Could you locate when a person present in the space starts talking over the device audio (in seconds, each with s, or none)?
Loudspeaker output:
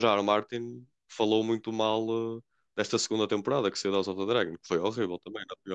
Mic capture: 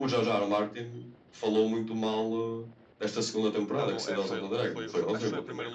3.7 s